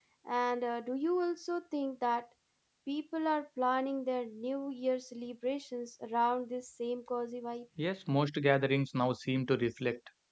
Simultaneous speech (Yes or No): No